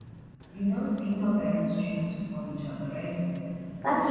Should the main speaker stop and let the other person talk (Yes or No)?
No